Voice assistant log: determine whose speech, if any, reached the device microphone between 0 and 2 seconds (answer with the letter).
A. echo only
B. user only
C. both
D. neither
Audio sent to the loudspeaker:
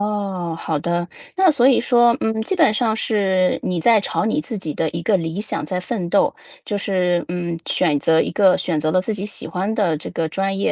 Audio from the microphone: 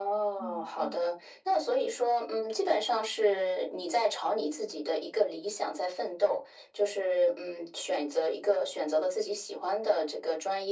C